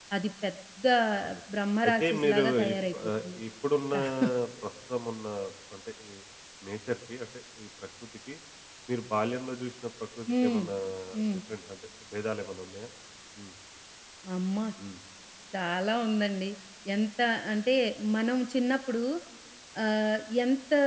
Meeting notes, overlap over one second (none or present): present